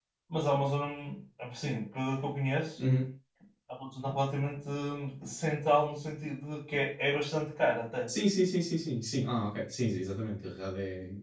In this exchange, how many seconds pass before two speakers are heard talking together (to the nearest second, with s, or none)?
none